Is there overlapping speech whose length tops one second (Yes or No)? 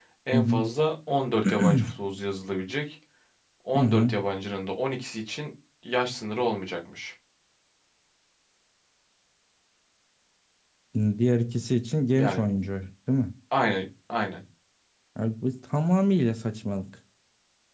No